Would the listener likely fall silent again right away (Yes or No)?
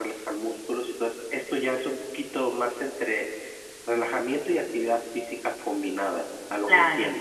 No